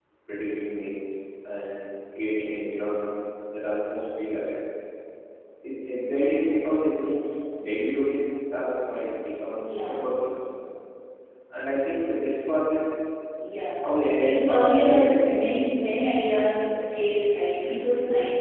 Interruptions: present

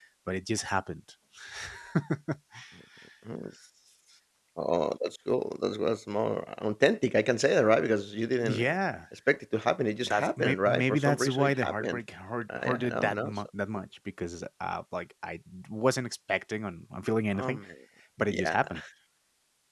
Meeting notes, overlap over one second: present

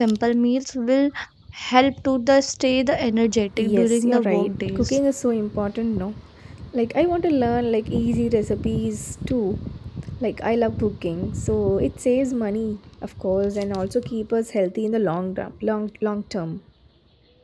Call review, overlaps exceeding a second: present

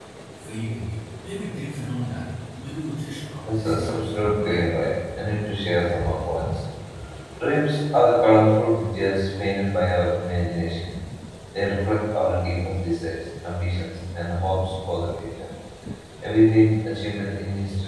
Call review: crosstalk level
present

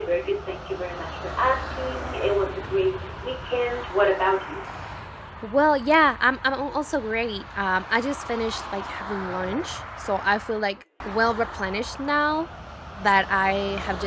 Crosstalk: none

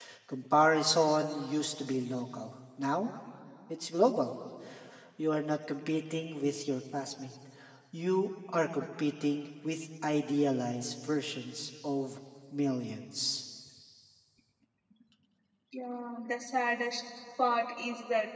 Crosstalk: none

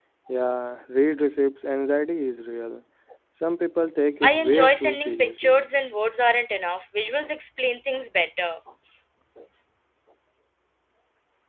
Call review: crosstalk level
present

